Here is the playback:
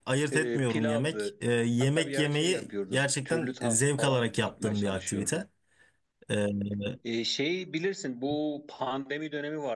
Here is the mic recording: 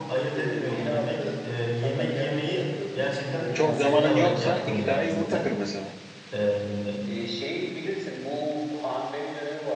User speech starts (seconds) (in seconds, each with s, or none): 3.5 s